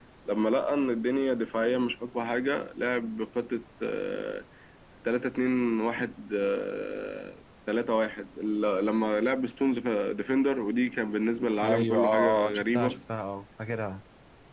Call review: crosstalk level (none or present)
present